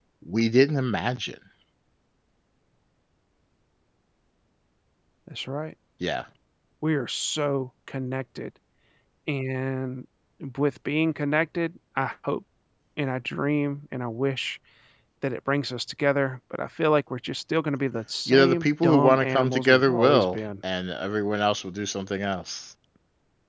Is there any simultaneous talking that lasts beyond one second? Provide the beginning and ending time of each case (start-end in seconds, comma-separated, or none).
18.3-20.4